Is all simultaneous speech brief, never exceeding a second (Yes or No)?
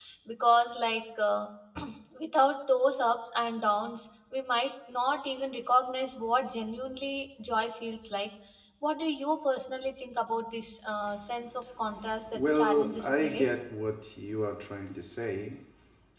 No